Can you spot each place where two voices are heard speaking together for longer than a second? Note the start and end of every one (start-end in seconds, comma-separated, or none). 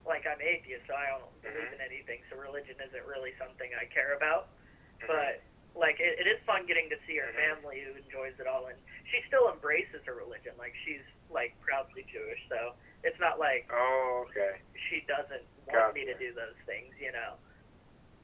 none